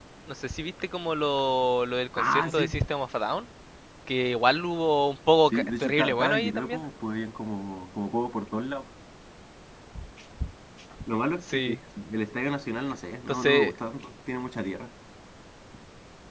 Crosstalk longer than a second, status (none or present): present